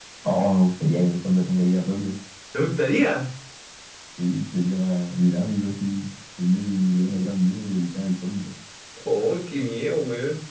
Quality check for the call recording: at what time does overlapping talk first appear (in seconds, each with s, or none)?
none